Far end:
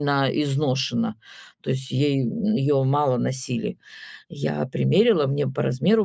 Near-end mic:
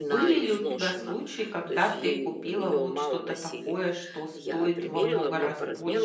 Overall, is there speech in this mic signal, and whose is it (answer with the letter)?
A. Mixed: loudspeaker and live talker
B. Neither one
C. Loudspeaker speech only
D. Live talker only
A